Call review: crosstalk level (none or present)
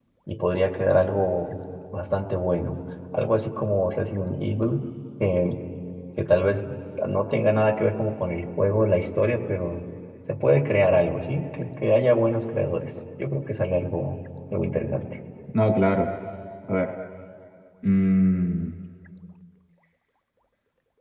none